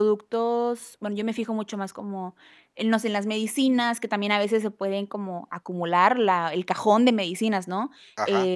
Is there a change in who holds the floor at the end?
Yes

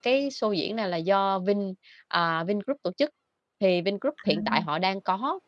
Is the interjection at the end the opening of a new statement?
No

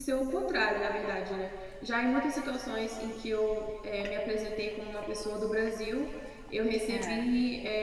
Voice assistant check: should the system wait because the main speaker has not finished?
Yes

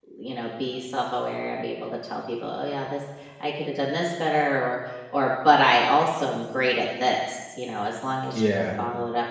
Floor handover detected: No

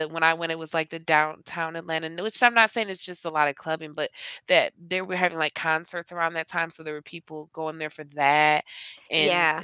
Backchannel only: Yes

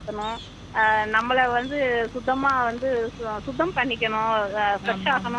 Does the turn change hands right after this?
No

